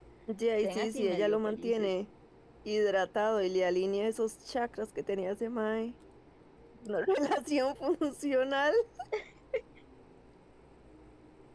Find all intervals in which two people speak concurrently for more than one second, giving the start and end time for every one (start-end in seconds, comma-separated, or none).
0.6-1.9